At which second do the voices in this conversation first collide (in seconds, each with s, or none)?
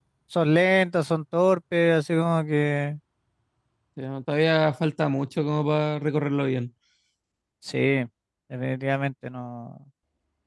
none